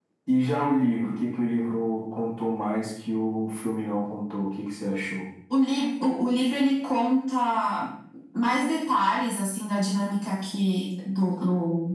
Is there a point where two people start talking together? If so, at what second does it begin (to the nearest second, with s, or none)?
none